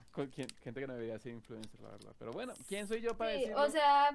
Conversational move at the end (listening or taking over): taking over